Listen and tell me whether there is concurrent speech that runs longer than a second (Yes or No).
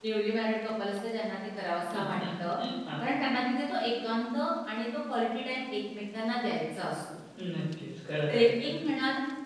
No